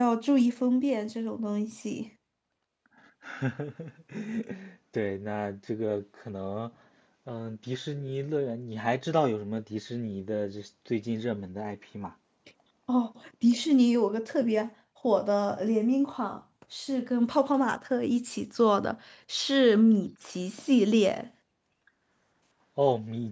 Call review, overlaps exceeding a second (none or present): none